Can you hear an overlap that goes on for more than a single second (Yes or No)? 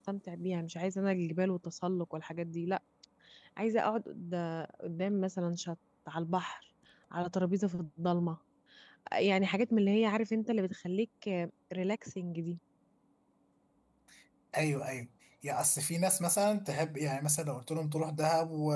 No